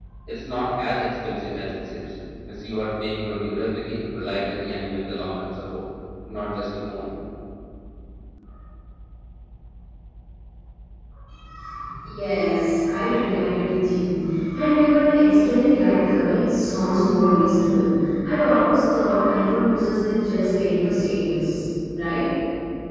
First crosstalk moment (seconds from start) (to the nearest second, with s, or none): none